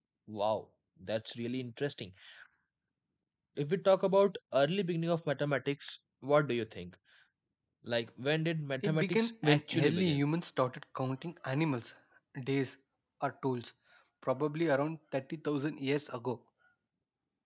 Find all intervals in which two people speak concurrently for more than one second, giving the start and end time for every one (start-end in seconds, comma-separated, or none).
8.8-10.2